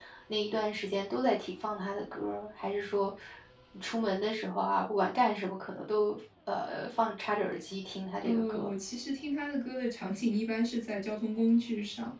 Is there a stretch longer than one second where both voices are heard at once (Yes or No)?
No